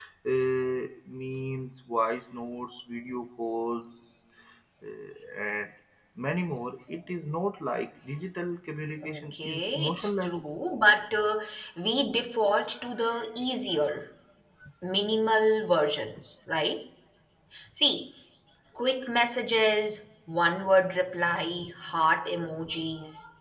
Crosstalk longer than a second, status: present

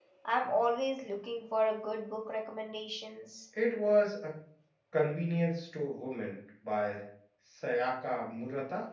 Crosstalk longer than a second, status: none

